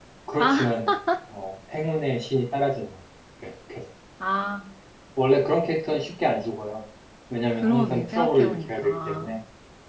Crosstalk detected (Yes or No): Yes